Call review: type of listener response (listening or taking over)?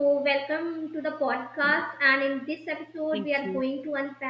listening